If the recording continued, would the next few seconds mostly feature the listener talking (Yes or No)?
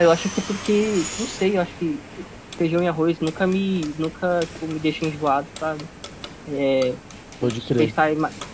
No